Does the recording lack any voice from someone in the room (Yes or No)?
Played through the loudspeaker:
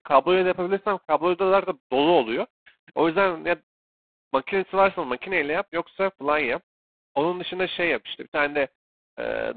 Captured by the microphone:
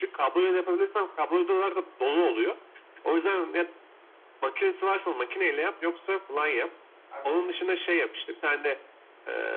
No